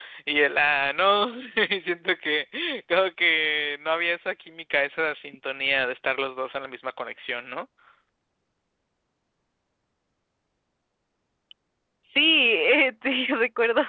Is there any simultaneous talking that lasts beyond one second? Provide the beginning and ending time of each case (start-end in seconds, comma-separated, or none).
none